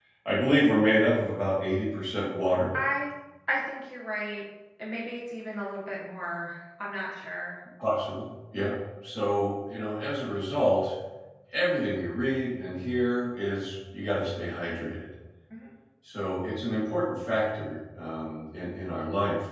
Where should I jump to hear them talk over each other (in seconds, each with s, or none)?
none